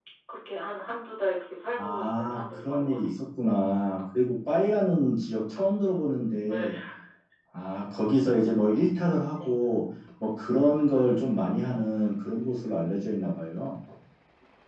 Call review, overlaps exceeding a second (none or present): present